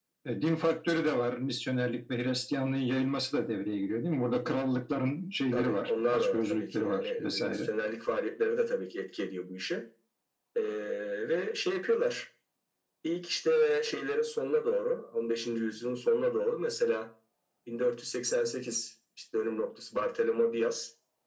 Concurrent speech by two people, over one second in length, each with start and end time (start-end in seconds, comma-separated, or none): 5.5-7.6